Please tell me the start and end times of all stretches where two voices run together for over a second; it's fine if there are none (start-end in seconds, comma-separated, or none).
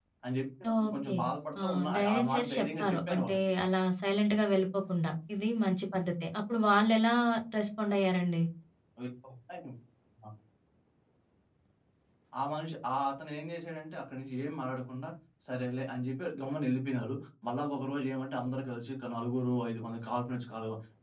1.6-3.2